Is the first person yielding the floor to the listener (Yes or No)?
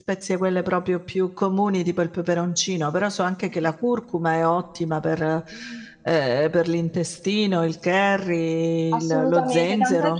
Yes